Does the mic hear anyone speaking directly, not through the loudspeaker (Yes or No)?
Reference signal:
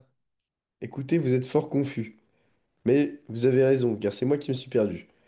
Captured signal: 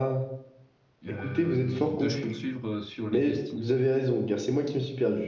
Yes